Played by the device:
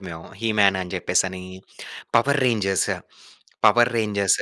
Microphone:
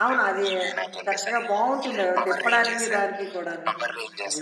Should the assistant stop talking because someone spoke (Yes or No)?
Yes